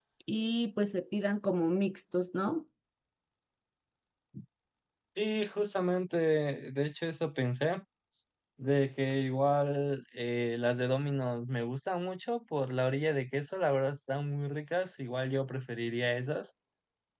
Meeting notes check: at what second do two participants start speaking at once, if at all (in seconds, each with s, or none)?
none